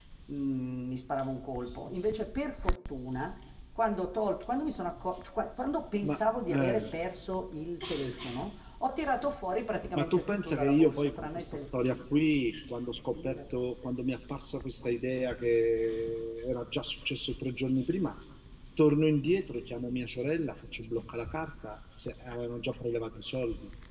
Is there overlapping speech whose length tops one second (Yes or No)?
Yes